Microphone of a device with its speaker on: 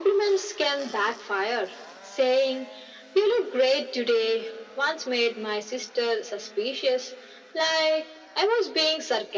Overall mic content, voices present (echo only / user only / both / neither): echo only